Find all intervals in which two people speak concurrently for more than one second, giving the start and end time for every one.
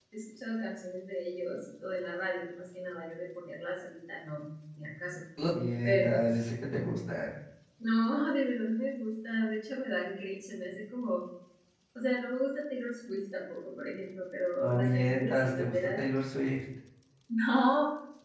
14.6-16.0

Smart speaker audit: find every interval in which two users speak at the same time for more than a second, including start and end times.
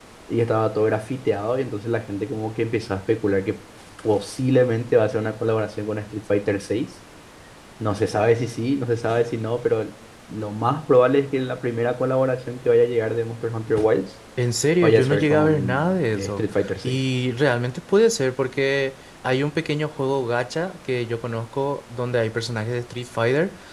14.8-17.0

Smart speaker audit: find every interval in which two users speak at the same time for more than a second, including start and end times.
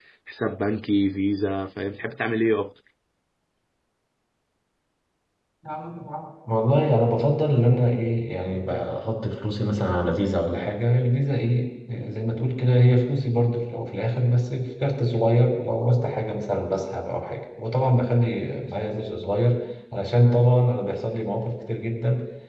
none

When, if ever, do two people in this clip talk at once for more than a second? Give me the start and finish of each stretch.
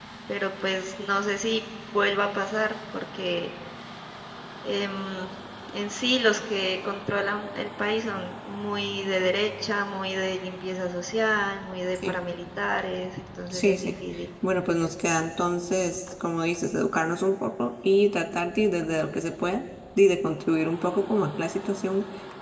none

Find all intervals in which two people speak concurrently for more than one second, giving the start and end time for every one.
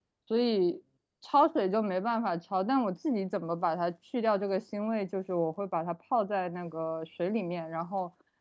none

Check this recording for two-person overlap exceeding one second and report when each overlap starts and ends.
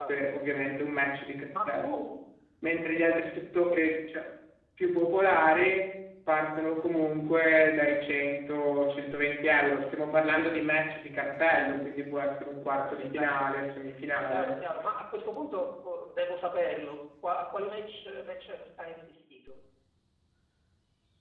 none

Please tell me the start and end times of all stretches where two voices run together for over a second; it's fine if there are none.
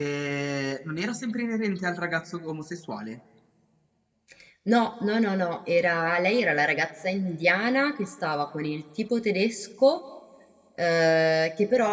none

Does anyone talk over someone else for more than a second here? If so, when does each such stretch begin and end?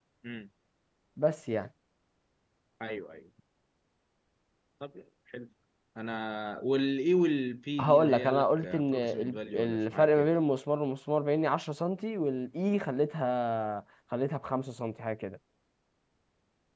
7.8-10.4

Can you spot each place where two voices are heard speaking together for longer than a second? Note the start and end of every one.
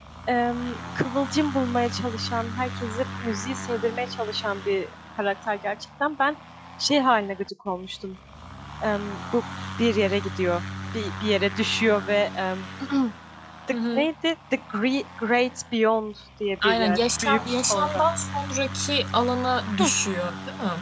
16.6-18.0

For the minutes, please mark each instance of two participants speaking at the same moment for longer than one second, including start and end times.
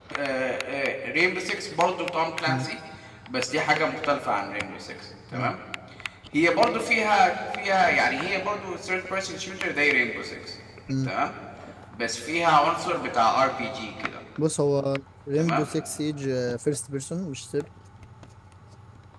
none

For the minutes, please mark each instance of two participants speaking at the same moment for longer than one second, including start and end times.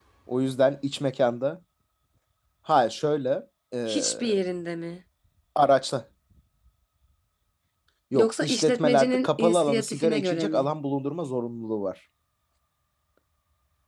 8.1-10.7

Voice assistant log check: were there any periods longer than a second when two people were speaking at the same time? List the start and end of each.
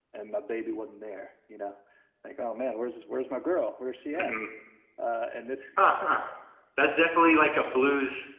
none

